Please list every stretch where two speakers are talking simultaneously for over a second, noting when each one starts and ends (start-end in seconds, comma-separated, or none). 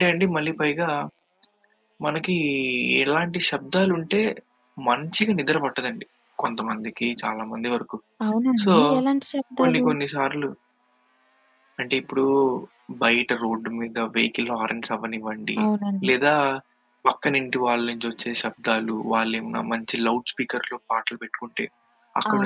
none